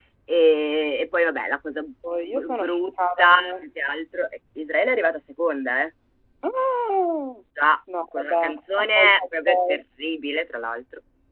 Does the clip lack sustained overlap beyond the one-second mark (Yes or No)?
No